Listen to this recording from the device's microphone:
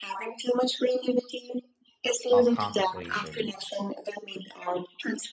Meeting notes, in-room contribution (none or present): present